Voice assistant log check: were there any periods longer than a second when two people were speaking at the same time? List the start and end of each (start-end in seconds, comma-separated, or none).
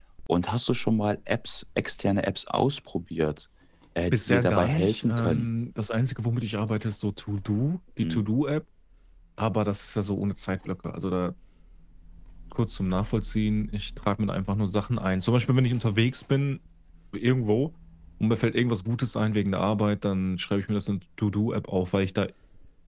4.1-5.5